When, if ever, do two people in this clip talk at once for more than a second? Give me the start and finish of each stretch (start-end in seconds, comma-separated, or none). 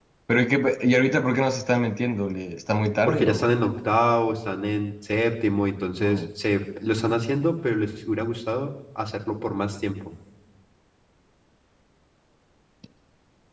none